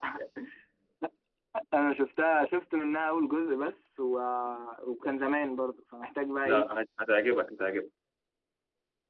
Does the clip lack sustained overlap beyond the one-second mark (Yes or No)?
Yes